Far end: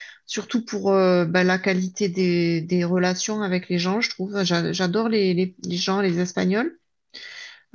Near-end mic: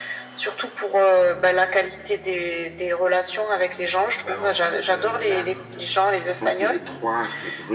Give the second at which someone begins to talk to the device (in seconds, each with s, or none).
4.2 s